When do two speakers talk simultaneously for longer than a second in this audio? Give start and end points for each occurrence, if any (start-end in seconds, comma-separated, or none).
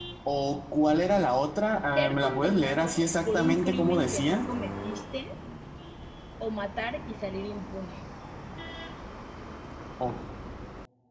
1.9-4.4